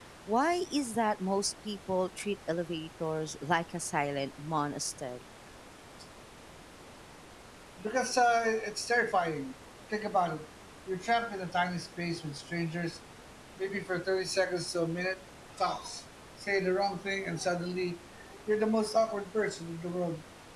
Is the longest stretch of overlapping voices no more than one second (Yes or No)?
Yes